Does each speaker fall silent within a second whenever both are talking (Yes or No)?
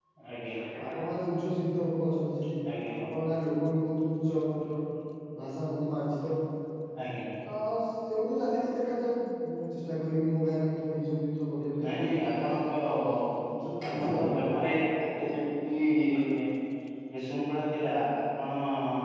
Yes